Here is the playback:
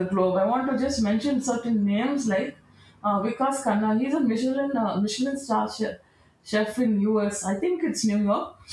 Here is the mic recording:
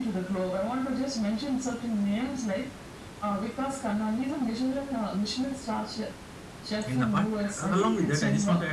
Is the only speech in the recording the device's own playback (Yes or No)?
No